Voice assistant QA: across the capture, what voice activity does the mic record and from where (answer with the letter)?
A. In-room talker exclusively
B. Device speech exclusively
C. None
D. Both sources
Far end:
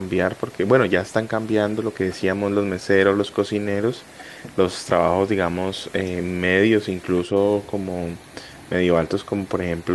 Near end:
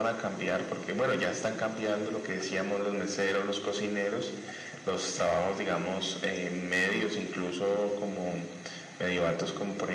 B